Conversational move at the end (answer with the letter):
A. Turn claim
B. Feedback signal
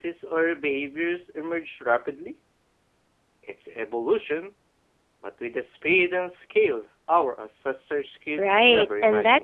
A